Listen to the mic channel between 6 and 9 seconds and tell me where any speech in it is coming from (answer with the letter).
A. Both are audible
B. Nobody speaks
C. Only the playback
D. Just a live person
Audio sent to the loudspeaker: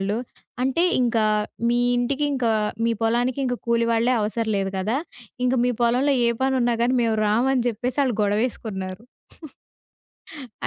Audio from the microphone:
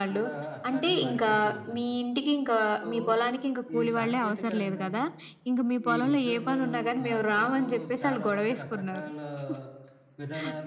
A